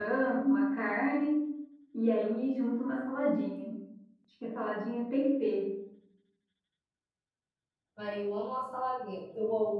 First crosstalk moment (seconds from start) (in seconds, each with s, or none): none